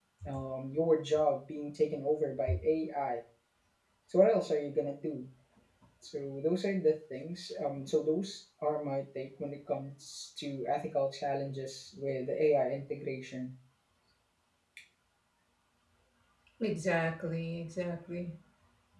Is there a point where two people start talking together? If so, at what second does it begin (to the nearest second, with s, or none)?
none